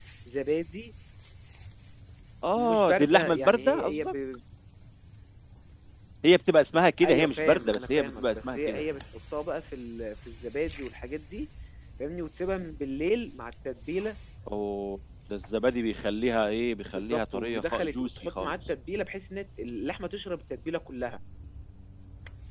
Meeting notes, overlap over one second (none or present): present